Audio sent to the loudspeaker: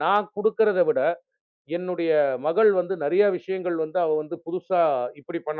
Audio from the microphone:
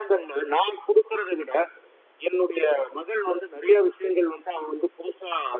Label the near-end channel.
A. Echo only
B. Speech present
A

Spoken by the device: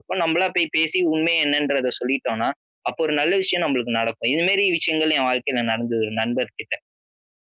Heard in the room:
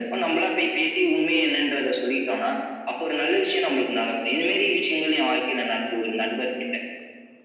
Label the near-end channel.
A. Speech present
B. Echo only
B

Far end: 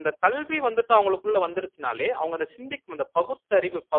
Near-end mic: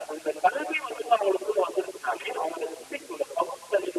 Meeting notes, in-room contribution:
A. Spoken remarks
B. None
B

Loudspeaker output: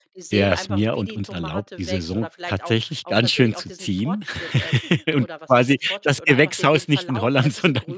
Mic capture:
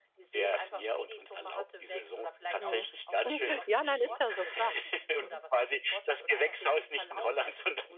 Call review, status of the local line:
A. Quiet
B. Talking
B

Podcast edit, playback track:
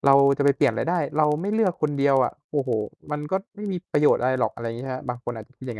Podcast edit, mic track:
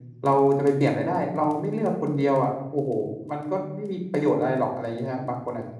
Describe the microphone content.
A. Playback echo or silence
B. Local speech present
A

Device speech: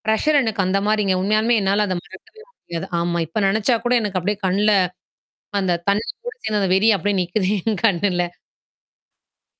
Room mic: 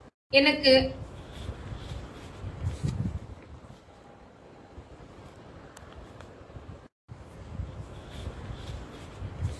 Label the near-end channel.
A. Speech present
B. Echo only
A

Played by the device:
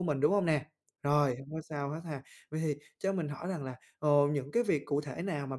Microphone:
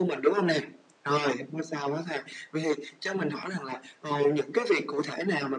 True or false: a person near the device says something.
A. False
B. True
A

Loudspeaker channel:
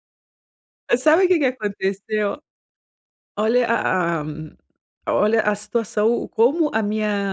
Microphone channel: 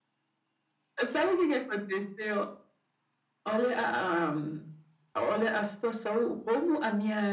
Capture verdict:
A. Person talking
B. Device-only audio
B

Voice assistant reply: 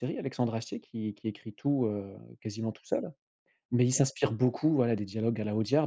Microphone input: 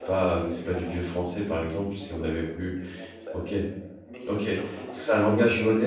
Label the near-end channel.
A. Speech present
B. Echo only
A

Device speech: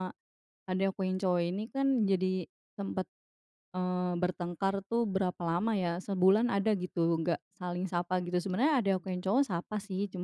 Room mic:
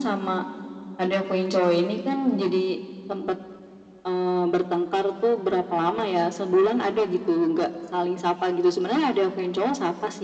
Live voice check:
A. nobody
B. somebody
A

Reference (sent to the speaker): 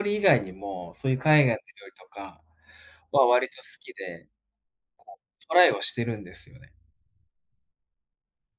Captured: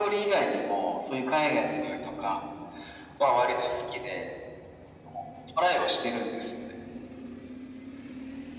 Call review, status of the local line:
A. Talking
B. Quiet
B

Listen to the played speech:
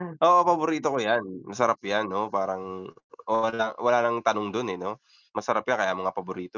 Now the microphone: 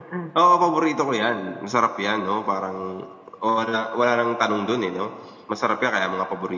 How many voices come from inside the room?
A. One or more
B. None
B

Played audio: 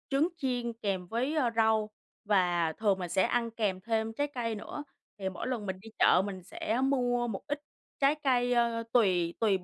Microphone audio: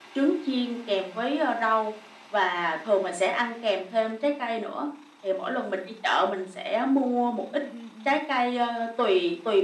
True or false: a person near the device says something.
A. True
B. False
A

